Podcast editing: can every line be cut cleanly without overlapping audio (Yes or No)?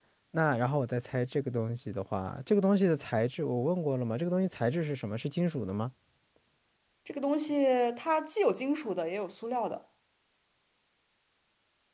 Yes